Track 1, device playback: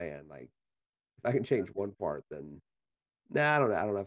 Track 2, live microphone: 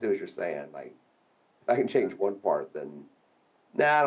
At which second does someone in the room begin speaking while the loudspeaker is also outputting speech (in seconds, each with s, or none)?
none